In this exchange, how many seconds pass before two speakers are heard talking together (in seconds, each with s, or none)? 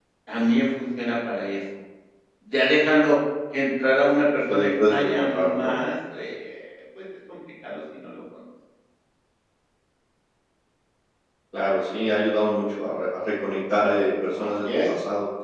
4.5 s